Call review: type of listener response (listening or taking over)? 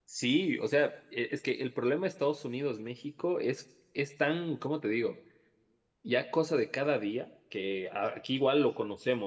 listening